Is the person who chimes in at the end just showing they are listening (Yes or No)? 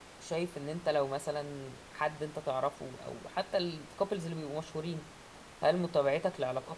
Yes